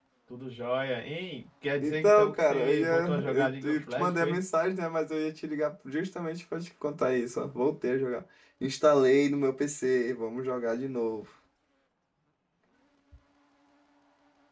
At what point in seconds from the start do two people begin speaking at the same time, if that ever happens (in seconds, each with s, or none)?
1.8 s